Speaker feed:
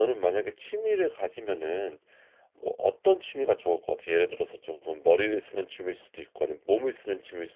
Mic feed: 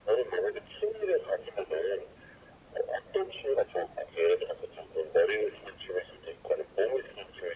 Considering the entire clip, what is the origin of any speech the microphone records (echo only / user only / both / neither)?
echo only